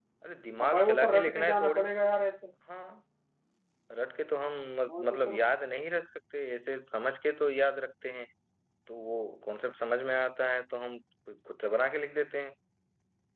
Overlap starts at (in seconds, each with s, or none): 0.6 s